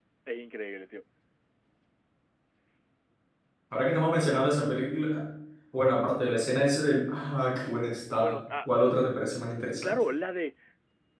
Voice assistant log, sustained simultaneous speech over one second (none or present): none